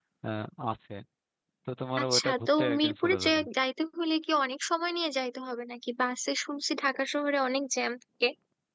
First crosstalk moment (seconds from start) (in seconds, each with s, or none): 2.0 s